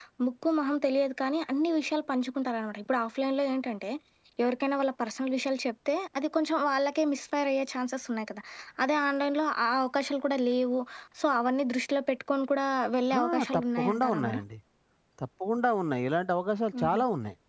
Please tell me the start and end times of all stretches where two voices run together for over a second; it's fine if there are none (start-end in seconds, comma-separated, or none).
13.2-14.4